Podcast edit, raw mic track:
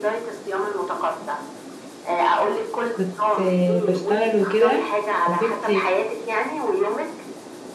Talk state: both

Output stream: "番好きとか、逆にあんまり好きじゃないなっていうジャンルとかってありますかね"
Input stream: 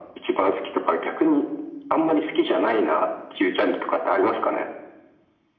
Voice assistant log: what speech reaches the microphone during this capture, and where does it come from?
echo only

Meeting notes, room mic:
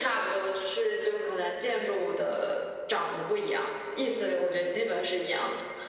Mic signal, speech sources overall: echo only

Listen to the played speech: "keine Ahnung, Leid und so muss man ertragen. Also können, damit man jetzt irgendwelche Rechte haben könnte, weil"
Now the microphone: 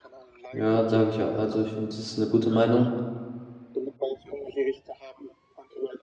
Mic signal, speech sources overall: both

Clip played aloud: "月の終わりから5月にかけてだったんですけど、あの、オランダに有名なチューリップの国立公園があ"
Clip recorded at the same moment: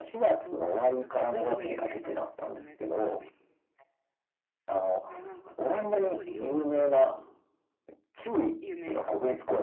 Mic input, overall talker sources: both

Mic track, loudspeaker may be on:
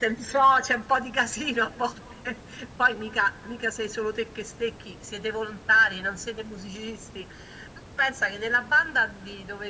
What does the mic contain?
echo only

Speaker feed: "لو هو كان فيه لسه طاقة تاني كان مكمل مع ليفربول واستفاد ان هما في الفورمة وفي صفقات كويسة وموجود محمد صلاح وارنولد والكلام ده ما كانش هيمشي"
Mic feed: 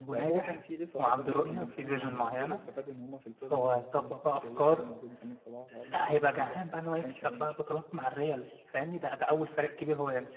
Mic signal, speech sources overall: both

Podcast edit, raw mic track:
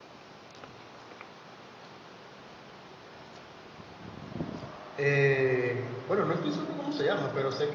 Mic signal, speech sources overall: user only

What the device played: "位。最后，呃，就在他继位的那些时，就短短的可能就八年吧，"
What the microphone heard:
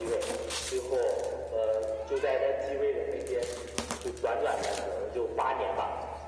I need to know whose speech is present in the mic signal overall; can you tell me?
echo only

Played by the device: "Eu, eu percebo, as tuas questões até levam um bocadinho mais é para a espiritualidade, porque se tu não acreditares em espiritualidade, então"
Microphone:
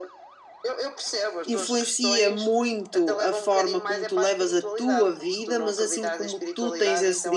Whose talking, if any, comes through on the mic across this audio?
both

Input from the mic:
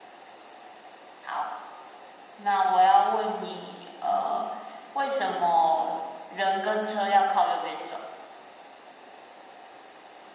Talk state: echo only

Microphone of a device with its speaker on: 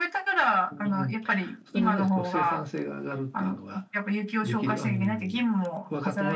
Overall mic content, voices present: echo only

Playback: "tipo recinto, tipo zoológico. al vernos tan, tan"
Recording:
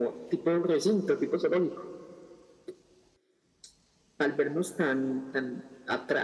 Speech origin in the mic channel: echo only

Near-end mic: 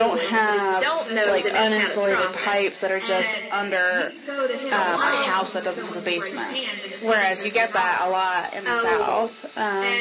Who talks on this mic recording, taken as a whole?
both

